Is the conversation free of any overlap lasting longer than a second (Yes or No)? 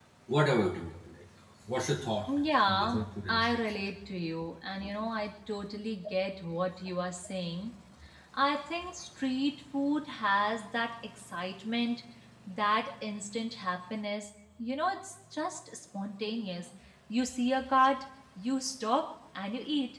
No